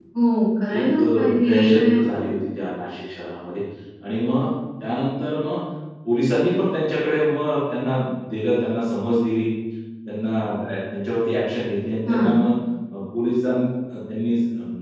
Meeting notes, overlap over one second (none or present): present